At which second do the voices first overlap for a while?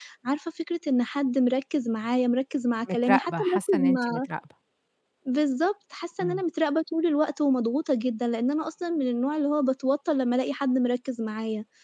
2.9 s

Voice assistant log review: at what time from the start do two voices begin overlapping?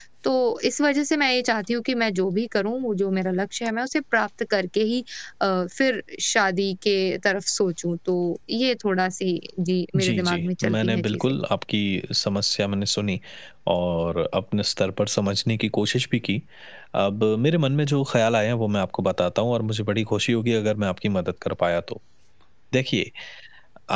9.9 s

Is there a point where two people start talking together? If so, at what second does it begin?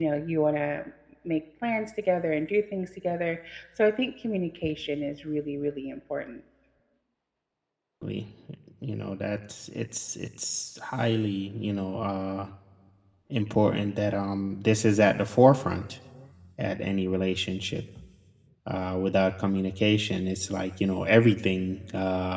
none

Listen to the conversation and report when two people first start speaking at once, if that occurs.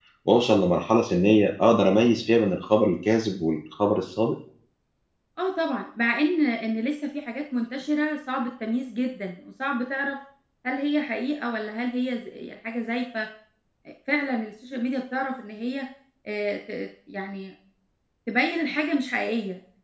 none

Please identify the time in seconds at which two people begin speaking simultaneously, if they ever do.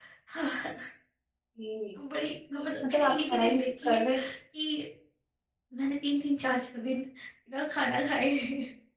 2.9 s

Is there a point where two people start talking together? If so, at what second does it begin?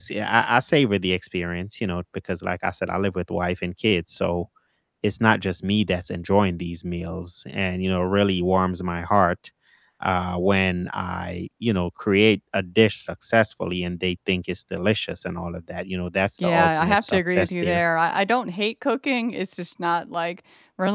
16.4 s

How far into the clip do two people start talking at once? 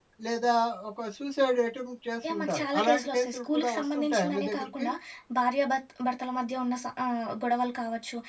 2.2 s

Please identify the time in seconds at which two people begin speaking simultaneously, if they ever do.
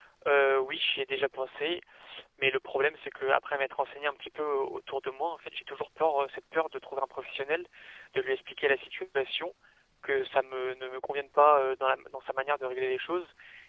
none

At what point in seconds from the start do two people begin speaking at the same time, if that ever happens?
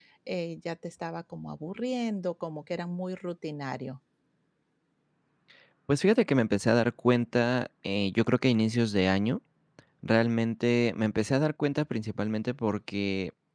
none

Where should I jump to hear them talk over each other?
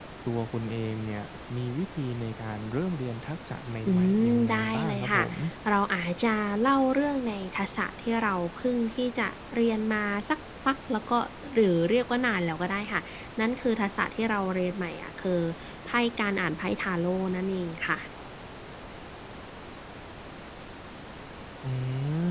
3.8 s

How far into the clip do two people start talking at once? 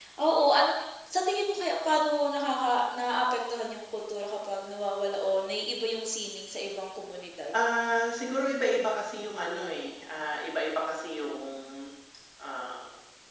none

